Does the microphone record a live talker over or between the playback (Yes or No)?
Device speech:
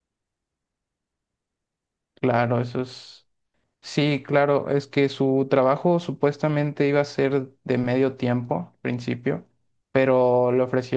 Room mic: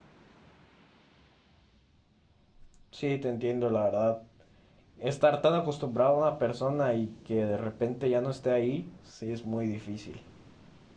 Yes